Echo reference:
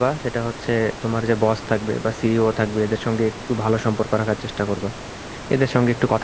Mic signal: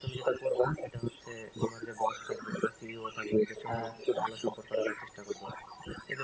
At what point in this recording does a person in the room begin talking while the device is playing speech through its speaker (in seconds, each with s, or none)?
3.8 s